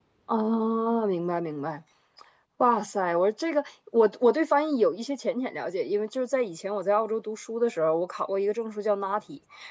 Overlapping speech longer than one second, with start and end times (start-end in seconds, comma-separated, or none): none